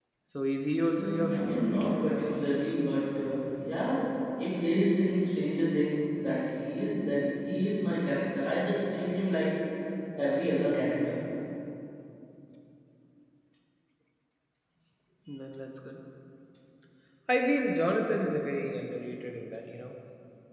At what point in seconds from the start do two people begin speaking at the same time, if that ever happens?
0.9 s

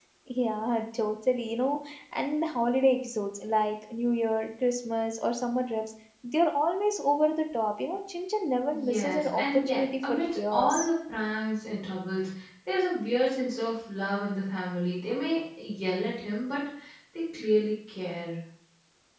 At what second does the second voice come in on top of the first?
8.7 s

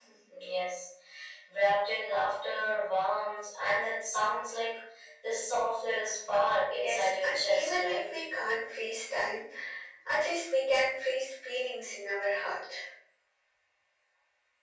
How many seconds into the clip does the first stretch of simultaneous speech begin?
6.8 s

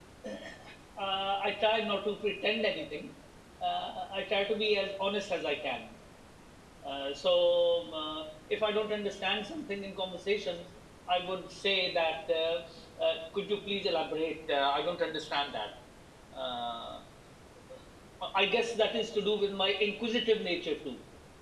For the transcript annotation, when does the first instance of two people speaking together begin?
none

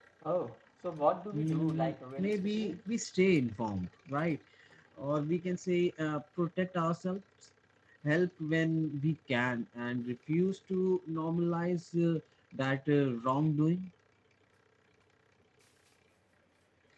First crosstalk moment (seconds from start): 1.3 s

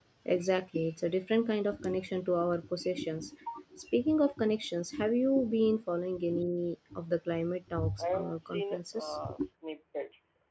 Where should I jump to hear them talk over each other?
8.0 s

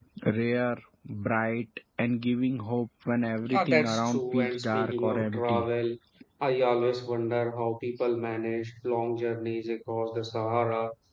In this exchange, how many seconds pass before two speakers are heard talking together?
3.4 s

